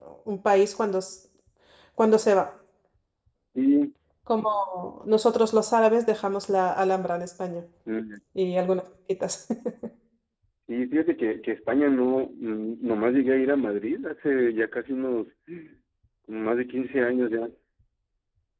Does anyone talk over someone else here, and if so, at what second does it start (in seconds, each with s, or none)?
none